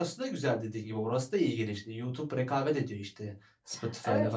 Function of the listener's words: taking over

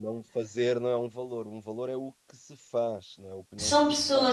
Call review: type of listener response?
taking over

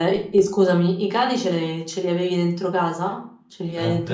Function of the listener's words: taking over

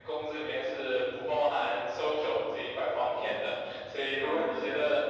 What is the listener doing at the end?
listening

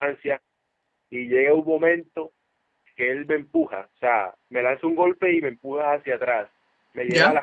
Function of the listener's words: listening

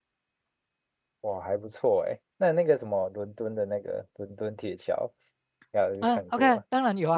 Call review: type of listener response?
taking over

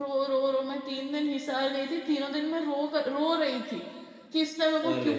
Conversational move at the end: listening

